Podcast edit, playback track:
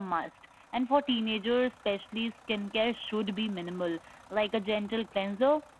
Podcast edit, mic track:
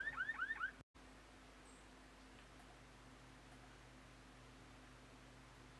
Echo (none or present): none